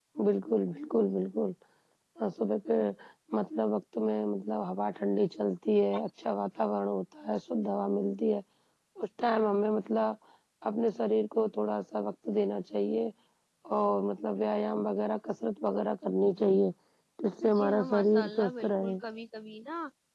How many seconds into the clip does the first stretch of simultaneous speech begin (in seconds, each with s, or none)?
17.6 s